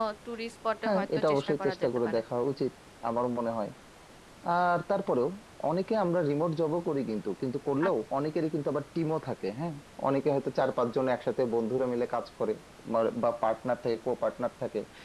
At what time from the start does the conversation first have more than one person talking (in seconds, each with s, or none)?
0.8 s